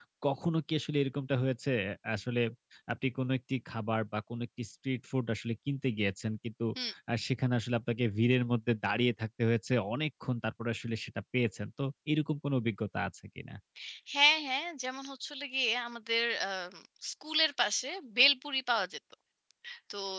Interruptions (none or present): none